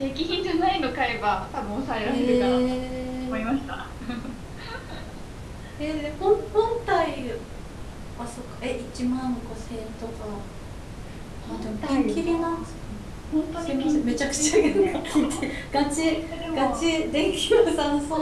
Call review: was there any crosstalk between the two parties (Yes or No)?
Yes